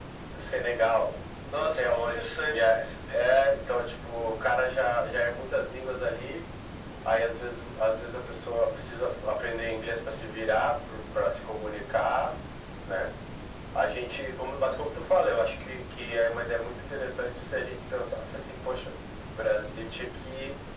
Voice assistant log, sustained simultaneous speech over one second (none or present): present